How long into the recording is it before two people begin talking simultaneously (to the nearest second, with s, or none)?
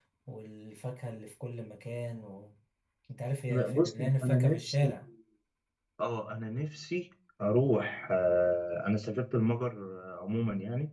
3 s